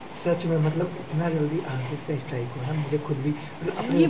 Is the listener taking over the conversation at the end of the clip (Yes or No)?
Yes